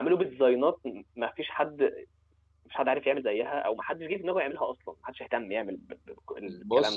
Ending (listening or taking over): taking over